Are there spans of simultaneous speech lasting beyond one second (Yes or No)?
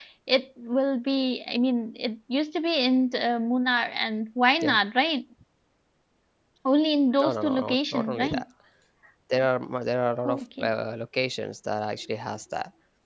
Yes